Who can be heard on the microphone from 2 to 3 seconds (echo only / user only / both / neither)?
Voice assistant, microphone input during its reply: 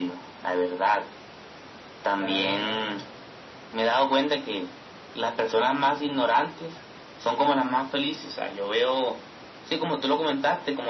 both